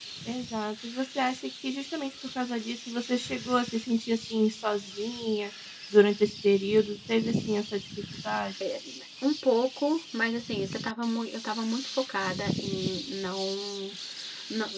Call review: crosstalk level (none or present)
none